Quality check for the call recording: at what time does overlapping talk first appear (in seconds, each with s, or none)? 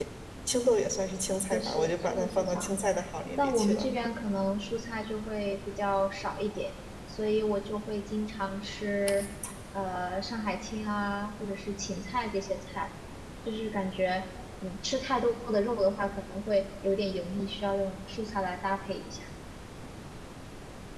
1.5 s